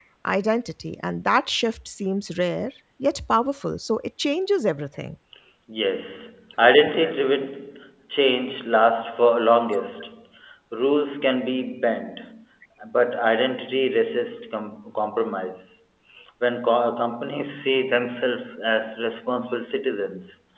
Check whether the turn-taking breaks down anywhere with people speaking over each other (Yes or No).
No